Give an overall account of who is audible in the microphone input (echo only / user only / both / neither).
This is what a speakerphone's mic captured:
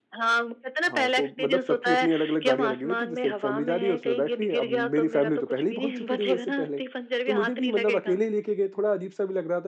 both